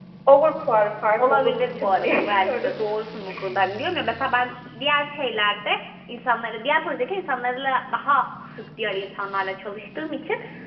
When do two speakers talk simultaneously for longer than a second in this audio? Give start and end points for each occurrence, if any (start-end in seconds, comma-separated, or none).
1.2-2.9